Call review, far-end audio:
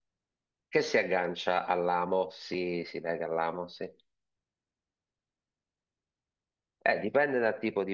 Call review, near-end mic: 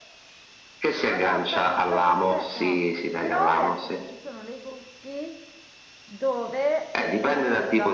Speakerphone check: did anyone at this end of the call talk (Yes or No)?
Yes